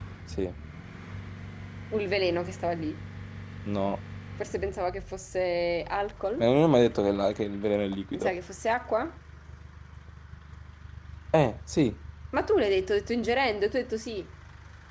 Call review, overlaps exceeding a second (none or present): none